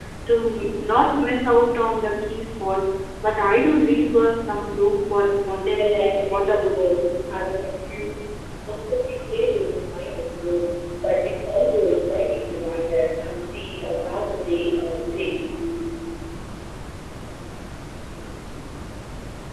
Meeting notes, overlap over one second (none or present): present